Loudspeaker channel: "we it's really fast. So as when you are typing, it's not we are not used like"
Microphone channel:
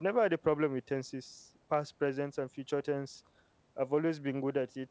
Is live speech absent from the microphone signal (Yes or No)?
No